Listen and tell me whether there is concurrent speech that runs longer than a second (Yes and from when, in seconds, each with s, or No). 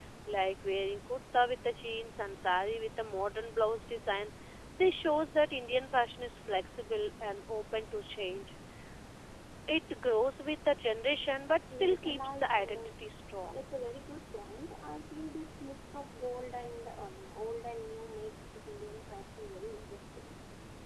Yes, from 11.7 s